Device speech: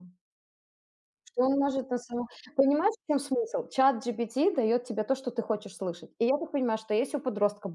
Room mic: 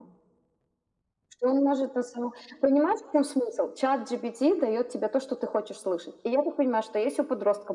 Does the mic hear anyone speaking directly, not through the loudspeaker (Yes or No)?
No